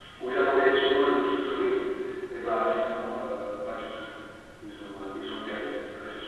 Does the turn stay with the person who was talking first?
No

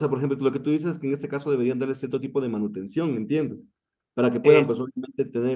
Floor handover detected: No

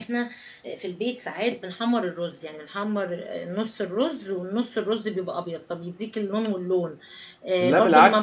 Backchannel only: Yes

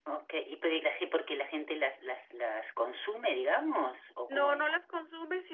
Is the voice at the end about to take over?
Yes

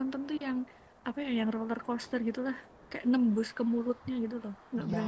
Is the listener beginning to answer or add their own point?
Yes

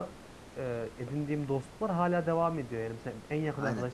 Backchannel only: Yes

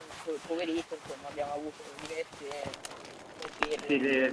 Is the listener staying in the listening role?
No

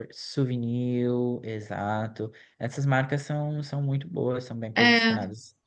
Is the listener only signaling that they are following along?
No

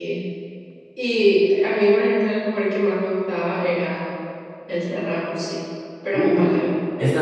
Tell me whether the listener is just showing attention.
No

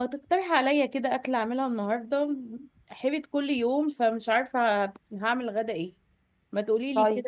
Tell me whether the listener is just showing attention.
Yes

